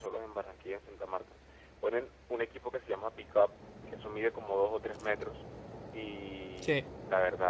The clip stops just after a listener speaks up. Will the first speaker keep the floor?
Yes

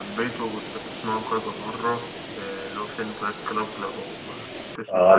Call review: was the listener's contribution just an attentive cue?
No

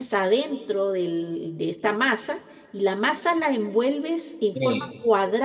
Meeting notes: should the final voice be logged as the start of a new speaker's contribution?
No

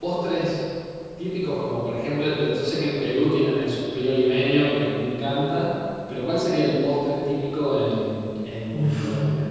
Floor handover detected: Yes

